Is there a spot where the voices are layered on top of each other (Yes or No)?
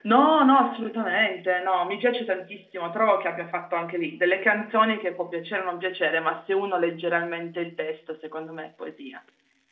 No